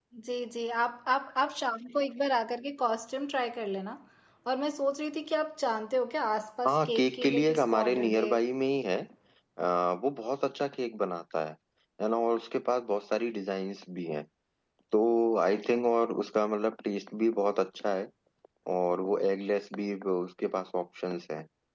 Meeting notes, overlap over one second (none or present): present